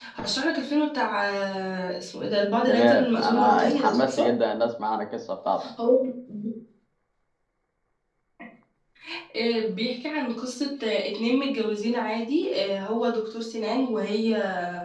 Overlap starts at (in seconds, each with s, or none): 2.7 s